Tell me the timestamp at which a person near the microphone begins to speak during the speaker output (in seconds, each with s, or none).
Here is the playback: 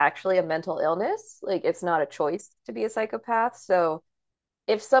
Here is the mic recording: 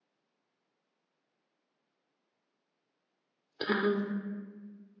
3.7 s